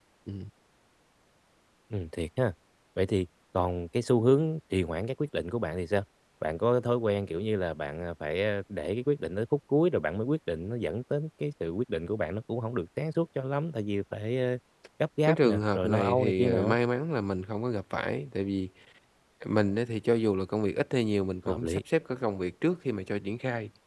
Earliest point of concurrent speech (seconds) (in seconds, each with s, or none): 15.3 s